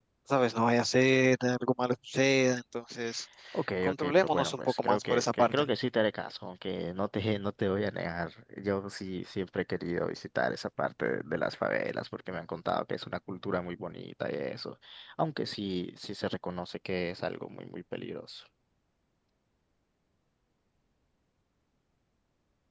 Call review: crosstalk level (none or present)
present